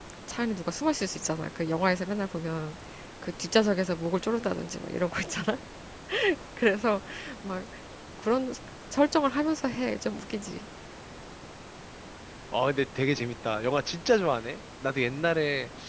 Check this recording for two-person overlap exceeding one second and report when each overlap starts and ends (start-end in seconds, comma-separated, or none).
none